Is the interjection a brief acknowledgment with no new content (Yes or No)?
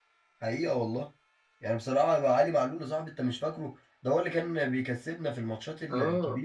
No